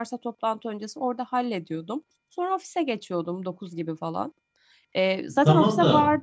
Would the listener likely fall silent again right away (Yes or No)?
No